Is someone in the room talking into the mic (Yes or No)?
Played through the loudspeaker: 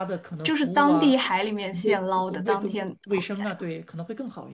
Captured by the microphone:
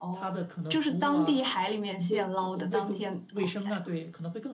No